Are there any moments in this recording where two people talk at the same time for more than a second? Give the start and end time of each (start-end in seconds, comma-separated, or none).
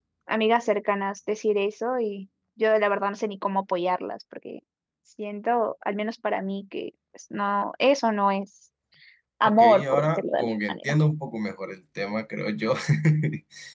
9.4-10.8